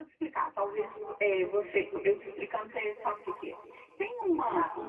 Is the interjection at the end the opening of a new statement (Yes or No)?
No